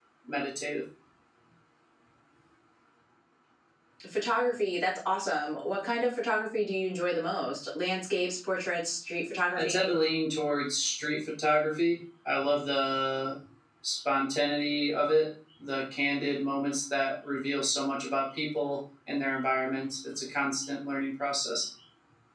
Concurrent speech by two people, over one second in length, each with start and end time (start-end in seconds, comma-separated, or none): none